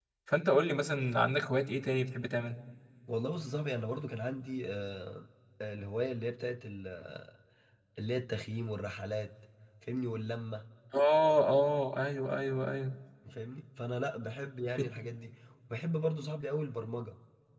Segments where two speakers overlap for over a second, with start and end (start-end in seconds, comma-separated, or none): none